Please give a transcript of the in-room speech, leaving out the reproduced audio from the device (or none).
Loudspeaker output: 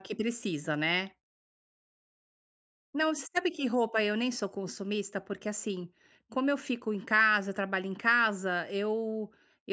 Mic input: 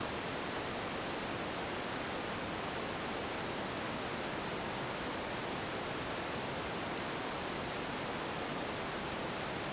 none